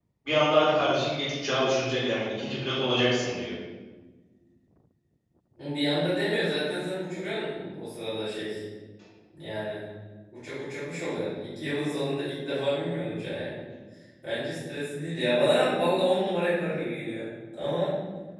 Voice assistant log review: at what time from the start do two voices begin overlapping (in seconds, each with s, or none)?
none